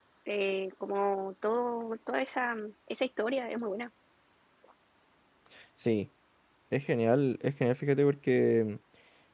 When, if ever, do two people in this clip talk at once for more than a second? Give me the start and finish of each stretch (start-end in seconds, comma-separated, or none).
none